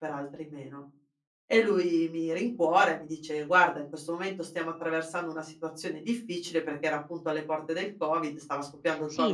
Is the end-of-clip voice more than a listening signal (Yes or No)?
Yes